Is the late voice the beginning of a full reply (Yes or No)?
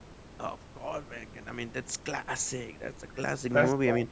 No